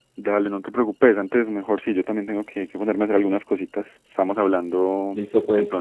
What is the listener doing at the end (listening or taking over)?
taking over